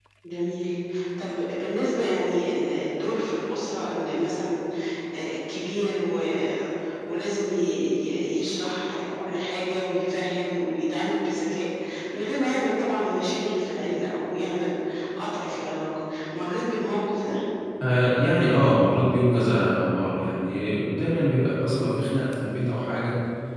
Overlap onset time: none

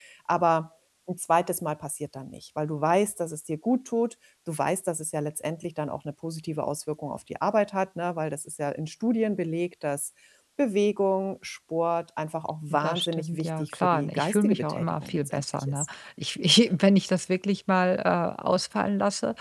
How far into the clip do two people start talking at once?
12.7 s

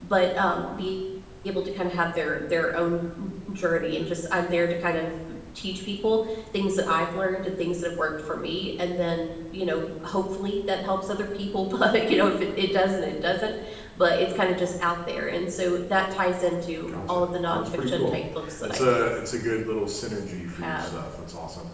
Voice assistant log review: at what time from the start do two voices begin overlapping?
16.9 s

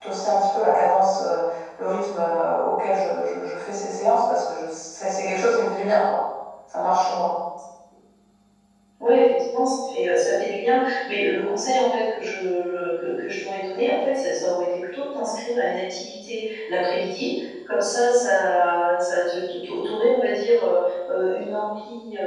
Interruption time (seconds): none

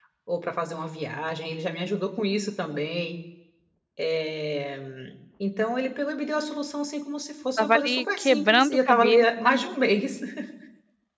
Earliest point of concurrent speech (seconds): 7.6 s

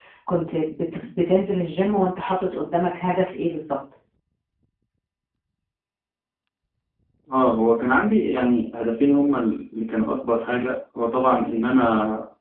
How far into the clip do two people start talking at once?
none

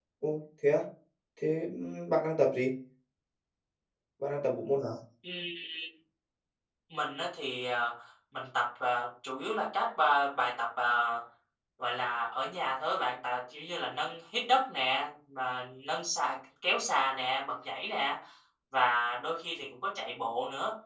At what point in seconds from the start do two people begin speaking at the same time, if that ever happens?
none

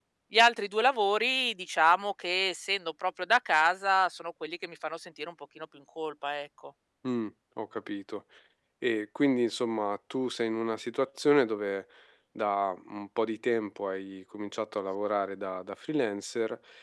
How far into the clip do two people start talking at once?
none

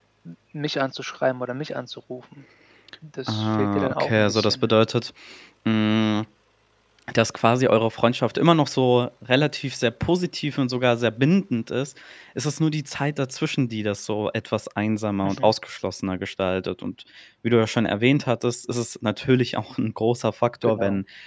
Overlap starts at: 3.3 s

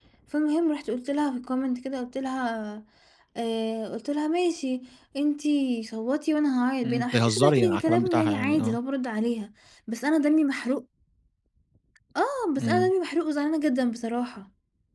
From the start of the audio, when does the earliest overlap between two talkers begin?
6.8 s

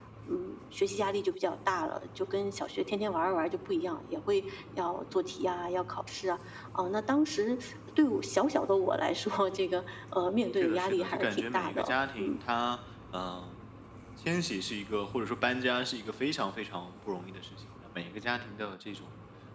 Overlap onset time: 10.6 s

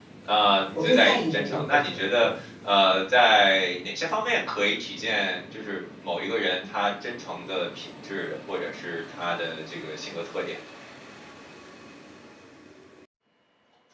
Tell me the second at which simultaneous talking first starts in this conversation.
0.7 s

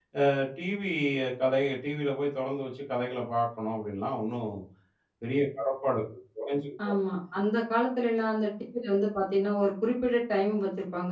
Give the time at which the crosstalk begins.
none

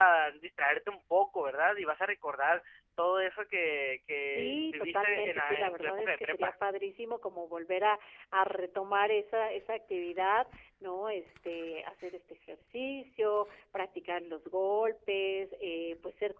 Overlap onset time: 4.3 s

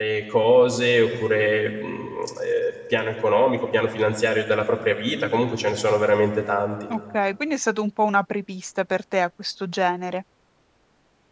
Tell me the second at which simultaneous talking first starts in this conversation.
none

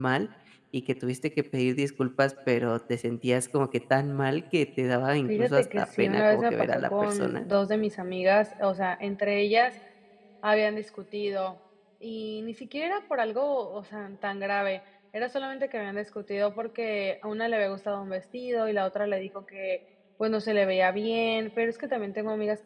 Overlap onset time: 5.3 s

